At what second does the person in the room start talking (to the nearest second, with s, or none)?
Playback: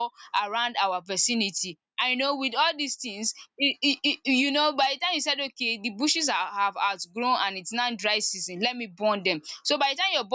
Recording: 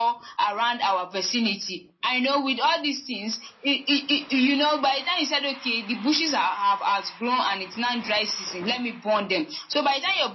none